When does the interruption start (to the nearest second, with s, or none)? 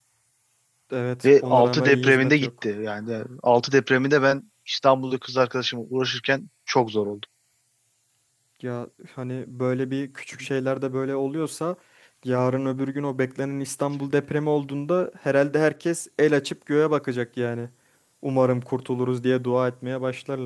1 s